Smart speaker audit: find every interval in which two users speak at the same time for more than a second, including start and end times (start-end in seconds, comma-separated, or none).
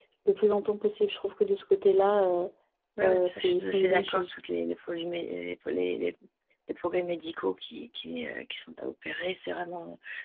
3.0-4.3